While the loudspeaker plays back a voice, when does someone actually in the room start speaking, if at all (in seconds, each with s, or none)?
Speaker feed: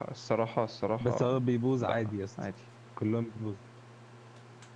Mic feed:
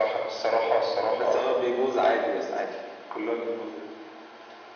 none